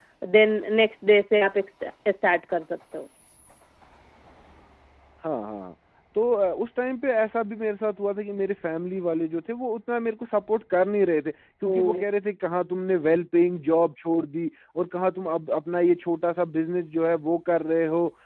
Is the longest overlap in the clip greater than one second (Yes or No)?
No